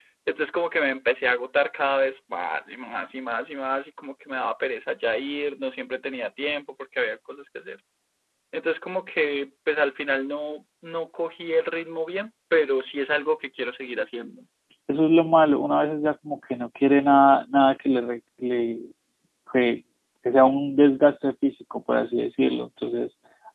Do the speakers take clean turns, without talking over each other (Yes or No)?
Yes